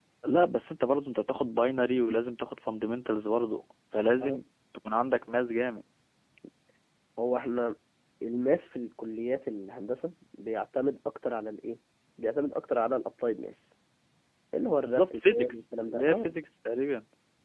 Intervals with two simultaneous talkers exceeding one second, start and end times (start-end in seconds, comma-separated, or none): 14.8-16.3